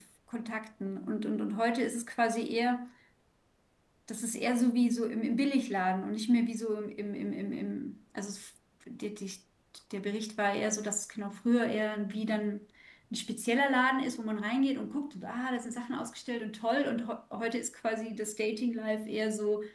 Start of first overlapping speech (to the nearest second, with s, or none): none